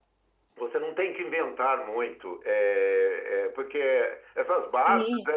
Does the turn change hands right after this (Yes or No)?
No